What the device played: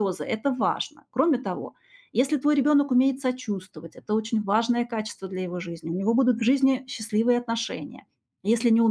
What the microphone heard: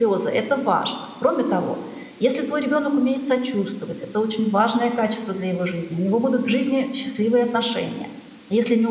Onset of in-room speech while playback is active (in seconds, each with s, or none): none